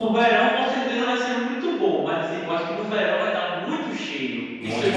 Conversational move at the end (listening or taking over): listening